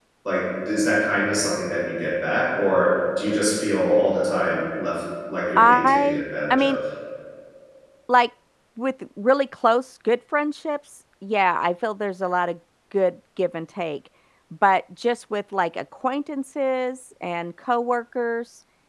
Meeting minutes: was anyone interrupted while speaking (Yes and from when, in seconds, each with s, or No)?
Yes, from 5.6 s